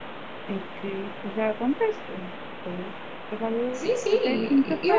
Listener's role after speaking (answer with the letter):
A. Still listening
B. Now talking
B